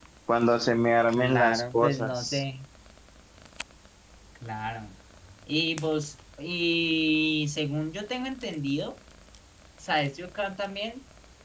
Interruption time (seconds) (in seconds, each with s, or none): 1.1 s